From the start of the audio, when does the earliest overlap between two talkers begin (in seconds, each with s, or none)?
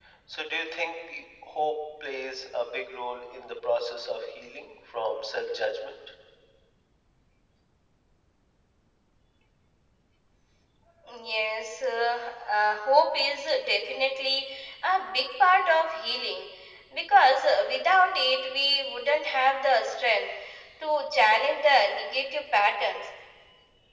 none